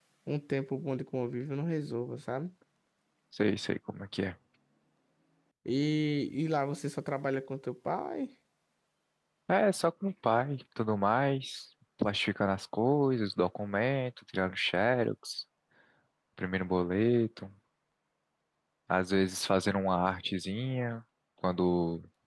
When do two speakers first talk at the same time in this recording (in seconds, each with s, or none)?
none